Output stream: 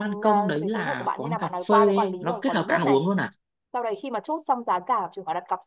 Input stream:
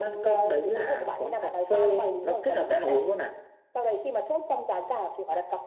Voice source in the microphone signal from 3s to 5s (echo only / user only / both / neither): echo only